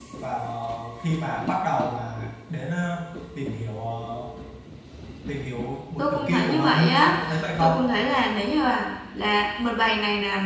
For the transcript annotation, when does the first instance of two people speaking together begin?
6.0 s

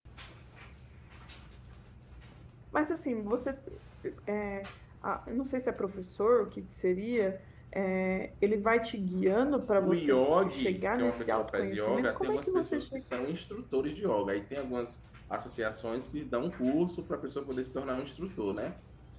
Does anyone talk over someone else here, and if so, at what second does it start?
9.8 s

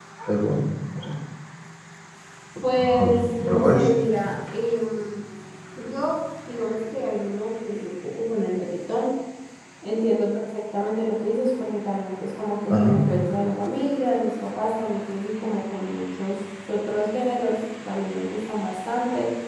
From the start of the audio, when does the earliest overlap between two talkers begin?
3.0 s

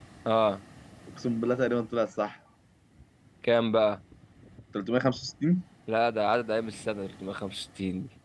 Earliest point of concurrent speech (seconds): none

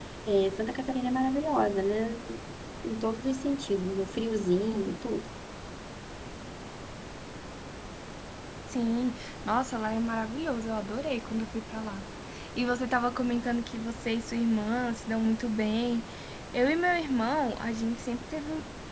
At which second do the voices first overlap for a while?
none

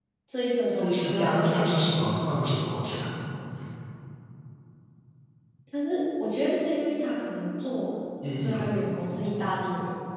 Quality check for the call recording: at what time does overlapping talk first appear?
0.8 s

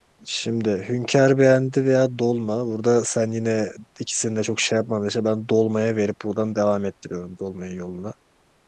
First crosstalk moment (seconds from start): none

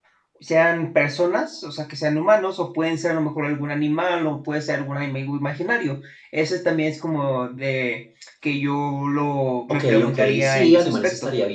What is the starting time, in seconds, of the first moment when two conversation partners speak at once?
9.7 s

